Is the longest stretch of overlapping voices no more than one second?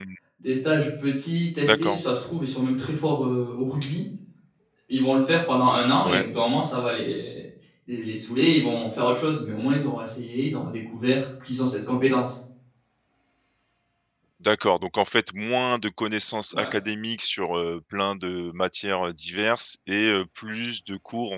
Yes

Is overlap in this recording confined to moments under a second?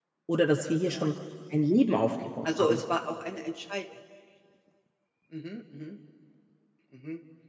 Yes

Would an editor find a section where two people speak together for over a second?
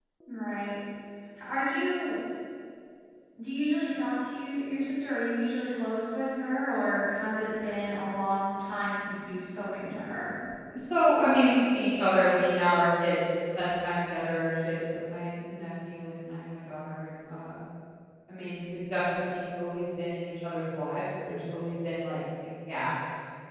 No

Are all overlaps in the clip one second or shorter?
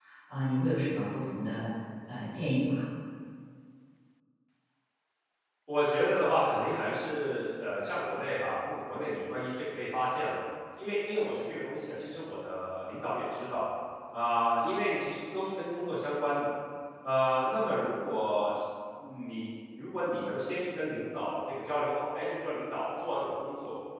Yes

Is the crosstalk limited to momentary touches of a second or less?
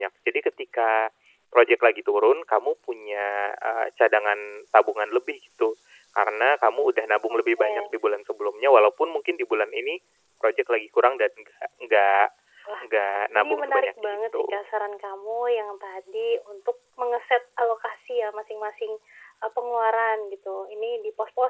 No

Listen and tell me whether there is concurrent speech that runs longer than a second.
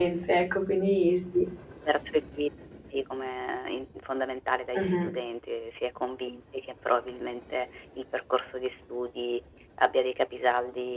No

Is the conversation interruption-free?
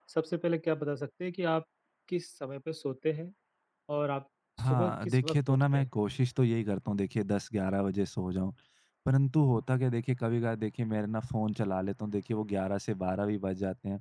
No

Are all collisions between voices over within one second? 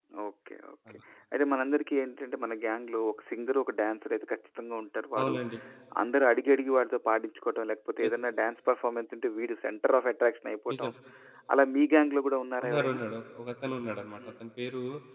Yes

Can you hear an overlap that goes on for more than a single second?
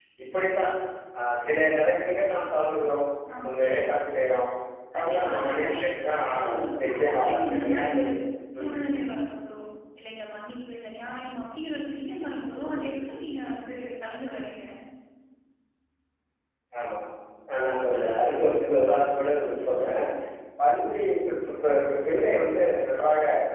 Yes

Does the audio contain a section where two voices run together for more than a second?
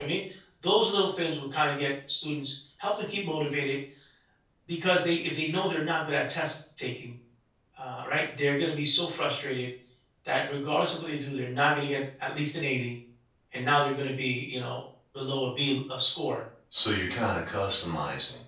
No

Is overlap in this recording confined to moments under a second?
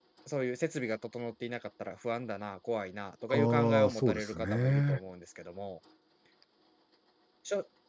No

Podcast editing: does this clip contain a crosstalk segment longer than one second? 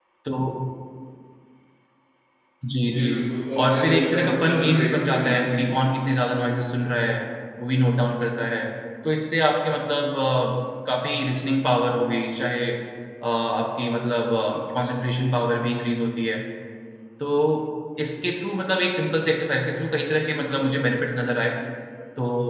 Yes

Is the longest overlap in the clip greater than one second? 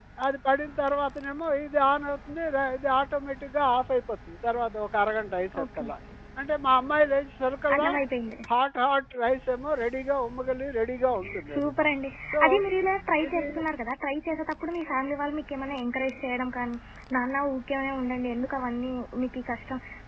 No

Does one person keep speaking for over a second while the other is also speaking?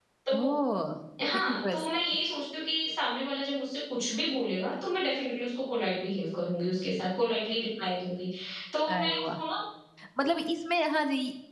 No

